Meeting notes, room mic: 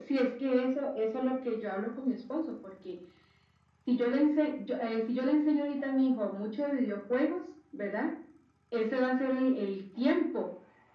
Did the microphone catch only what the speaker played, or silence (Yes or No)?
Yes